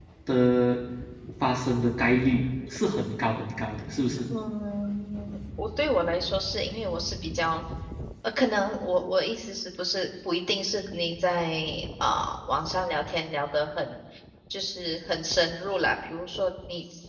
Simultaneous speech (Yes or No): No